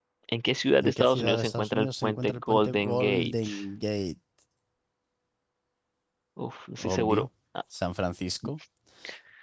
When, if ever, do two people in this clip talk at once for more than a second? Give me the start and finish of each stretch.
0.8-3.5

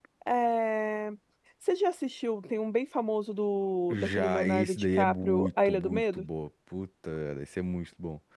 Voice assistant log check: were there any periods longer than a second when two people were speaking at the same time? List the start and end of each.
3.9-6.2

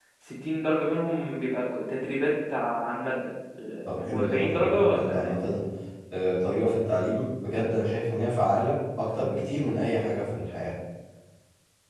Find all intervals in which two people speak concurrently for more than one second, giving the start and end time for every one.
3.9-5.3

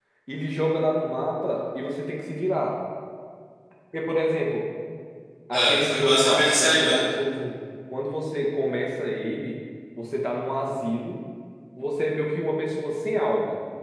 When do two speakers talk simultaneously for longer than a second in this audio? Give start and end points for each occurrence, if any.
5.5-7.0

